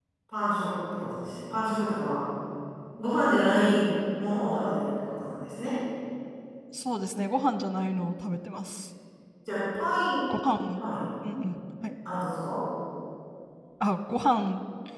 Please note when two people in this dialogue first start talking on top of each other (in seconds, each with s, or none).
none